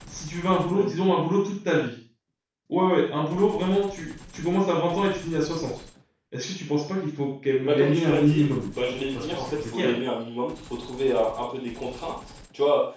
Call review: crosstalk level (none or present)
present